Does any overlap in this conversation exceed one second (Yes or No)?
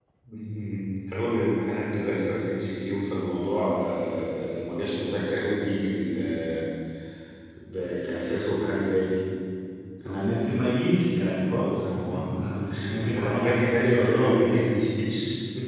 Yes